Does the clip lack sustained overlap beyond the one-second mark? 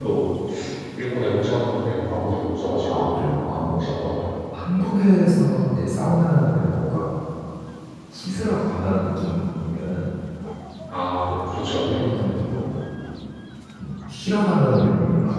Yes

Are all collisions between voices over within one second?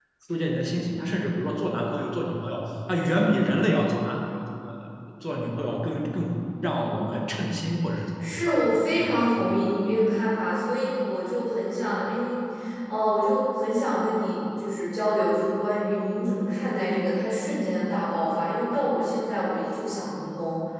Yes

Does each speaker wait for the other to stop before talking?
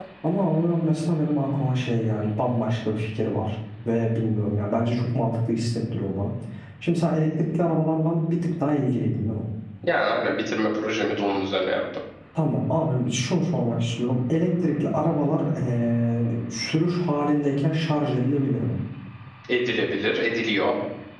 Yes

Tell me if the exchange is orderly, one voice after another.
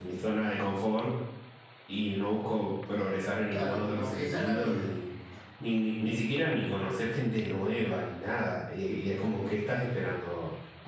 No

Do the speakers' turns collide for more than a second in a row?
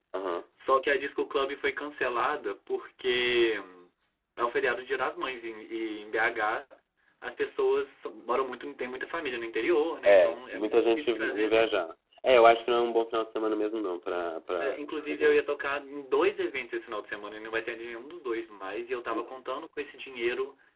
Yes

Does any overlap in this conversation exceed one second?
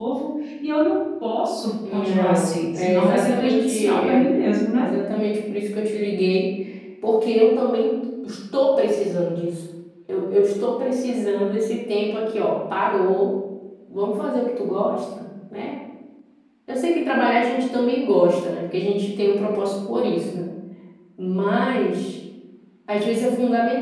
Yes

